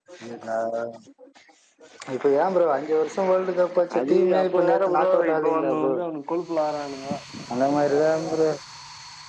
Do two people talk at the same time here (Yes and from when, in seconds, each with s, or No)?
Yes, from 3.9 s